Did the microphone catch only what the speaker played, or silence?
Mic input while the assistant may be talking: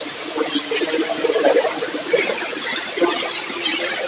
Yes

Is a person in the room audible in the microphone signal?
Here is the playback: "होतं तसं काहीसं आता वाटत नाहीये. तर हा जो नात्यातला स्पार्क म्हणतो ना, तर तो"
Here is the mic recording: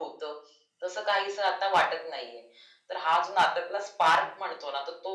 No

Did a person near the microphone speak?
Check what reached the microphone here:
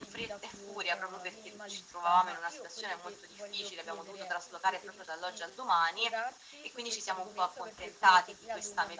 Yes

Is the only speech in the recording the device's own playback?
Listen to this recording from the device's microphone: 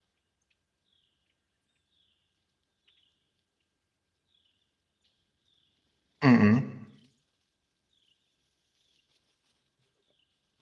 No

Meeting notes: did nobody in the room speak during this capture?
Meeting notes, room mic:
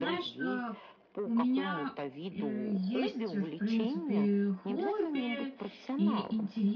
No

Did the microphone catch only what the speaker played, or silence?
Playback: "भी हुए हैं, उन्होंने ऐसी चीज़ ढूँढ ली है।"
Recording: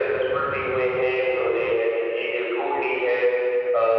Yes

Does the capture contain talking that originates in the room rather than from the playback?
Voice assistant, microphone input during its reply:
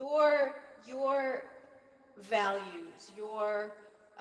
Yes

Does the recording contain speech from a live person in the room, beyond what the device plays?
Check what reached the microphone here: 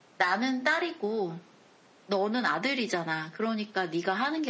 No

